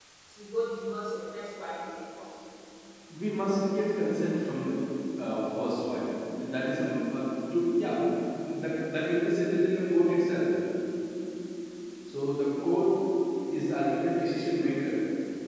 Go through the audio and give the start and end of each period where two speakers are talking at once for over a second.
none

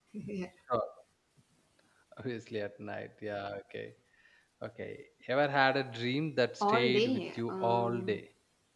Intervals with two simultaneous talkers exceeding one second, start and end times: 6.6-8.2

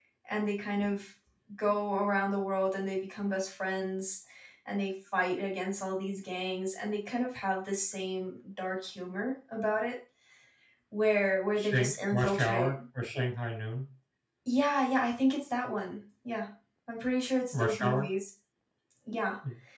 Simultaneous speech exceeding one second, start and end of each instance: 11.6-12.8

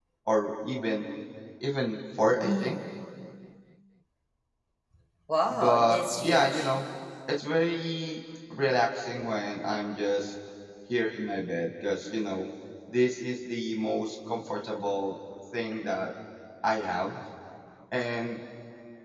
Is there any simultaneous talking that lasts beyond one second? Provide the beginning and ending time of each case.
5.5-6.7

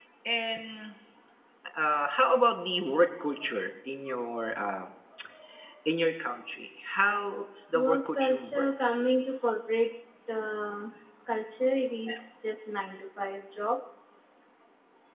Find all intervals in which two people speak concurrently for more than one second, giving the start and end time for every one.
7.7-9.0

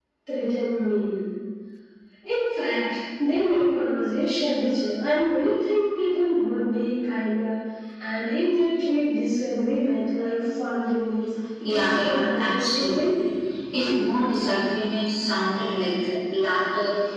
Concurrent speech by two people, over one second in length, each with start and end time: 11.7-13.1

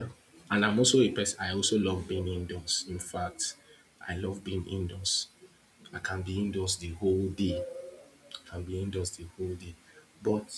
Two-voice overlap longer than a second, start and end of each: none

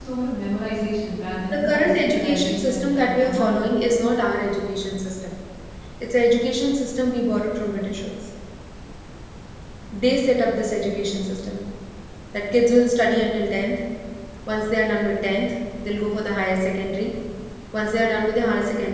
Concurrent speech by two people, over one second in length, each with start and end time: 1.5-3.8

